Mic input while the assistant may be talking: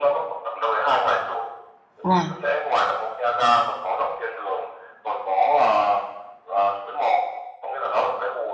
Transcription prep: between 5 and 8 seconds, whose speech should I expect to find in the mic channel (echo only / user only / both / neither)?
echo only